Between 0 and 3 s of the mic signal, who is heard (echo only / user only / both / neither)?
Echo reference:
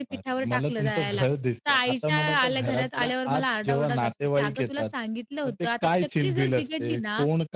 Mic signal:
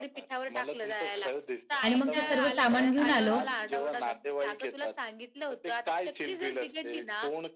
both